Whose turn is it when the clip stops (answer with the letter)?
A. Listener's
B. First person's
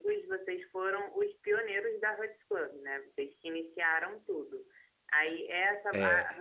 B